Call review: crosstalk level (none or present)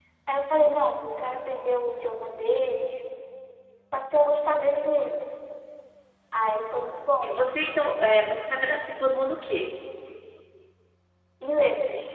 none